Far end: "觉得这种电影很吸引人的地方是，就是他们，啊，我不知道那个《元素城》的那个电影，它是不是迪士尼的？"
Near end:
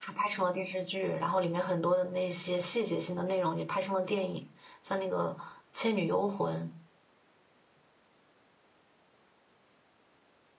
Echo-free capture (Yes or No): Yes